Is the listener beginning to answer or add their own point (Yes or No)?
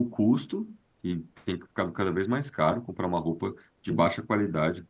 No